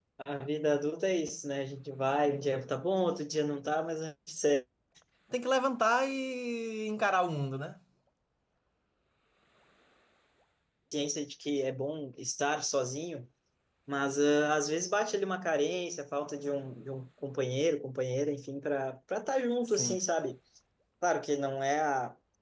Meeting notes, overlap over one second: none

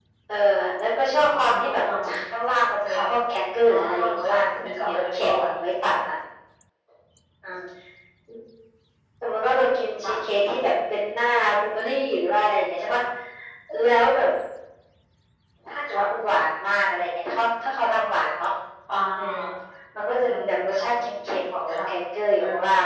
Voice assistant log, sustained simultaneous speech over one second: present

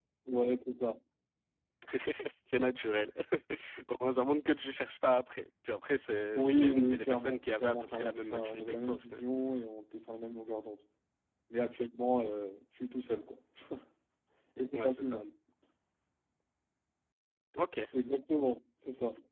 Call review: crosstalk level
present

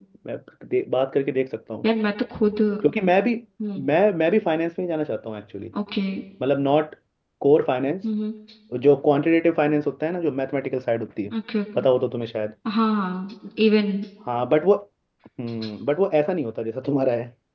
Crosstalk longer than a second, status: none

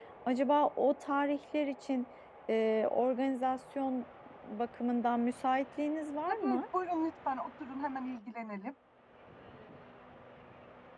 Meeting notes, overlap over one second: none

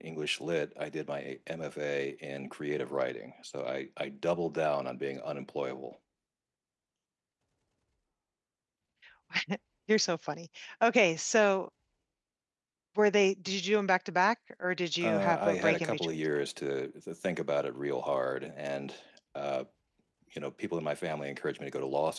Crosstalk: present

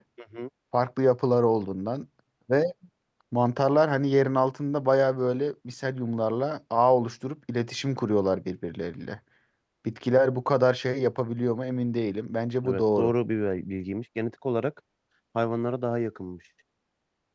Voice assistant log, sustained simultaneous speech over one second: none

